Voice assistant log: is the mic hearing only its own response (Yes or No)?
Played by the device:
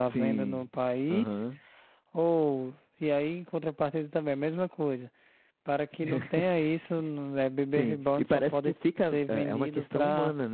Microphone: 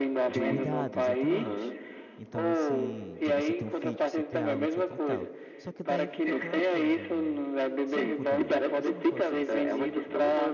No